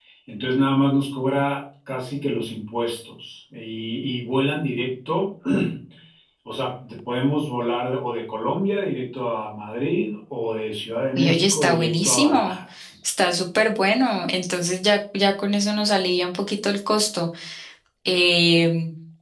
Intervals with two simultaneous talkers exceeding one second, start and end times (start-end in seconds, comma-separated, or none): 11.2-12.6